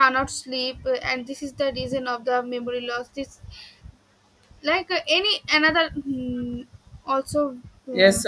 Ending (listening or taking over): taking over